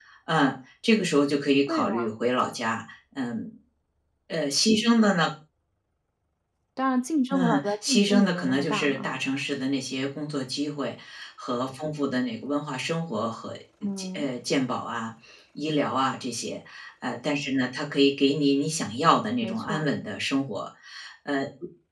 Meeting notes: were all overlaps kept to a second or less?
No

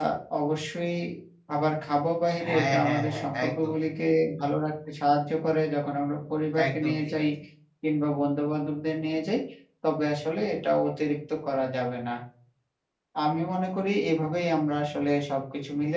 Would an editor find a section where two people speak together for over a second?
Yes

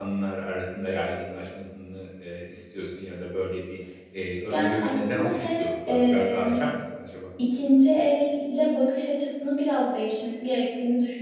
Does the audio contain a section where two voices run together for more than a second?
Yes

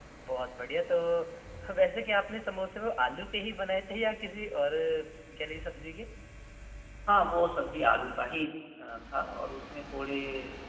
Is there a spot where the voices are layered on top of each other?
No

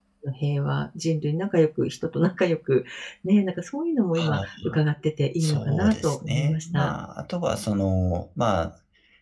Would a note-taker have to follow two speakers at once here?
Yes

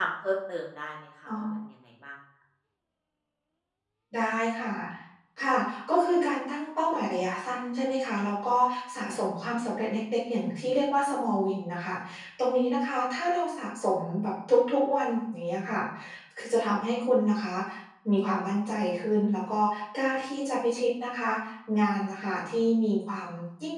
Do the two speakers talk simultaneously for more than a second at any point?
No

